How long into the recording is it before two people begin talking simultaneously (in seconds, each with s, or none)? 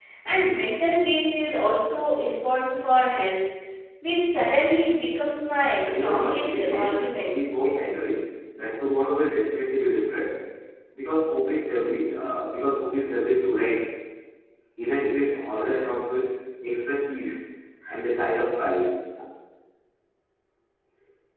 5.8 s